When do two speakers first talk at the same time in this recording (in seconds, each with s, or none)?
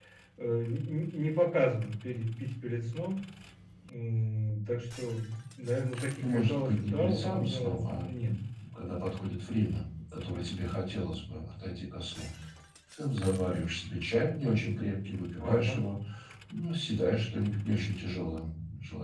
6.2 s